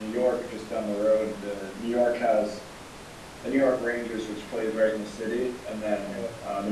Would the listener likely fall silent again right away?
Yes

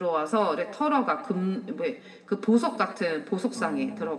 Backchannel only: No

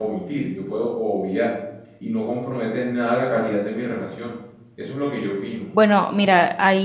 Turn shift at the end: Yes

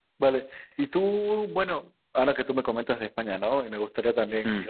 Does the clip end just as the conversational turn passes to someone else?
No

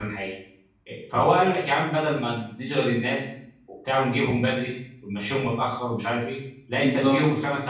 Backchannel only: Yes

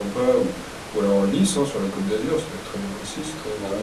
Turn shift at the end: Yes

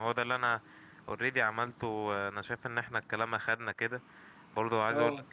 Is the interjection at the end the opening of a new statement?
No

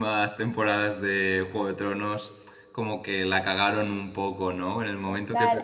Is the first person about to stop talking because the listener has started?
Yes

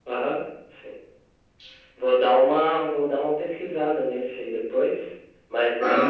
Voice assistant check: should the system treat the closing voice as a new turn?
Yes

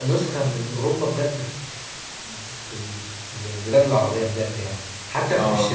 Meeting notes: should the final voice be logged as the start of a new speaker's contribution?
No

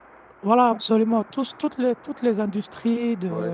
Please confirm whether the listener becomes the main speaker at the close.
No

